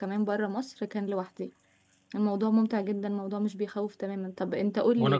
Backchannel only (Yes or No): No